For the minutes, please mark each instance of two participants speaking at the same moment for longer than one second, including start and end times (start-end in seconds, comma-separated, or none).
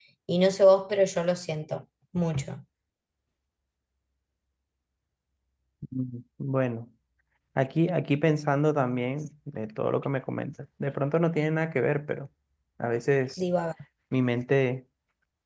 none